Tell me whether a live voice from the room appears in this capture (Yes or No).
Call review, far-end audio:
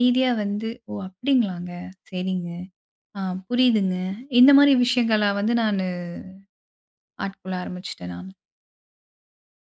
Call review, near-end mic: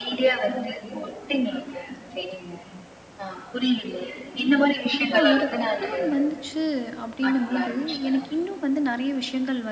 Yes